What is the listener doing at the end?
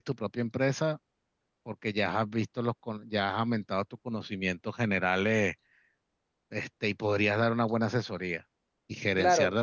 listening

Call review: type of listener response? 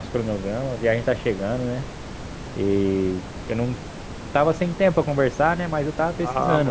taking over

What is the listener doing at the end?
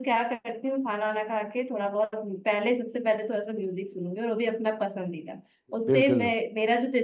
listening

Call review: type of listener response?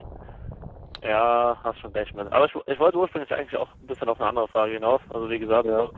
listening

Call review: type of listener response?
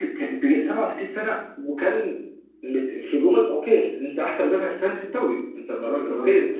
listening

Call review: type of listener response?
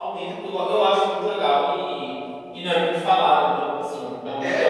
taking over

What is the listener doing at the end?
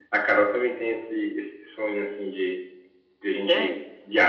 listening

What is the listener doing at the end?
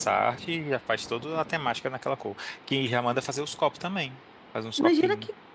taking over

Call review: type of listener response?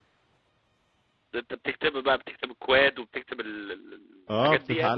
taking over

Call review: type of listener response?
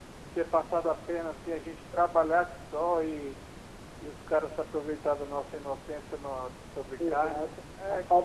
taking over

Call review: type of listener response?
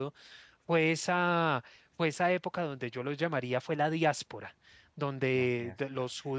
listening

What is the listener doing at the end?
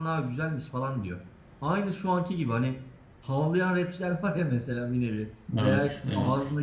listening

